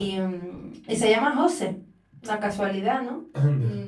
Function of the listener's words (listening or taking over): listening